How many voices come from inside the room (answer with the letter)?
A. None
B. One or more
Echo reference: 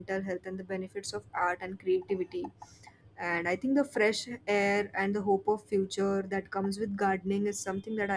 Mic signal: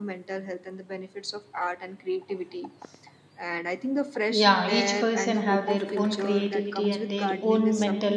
B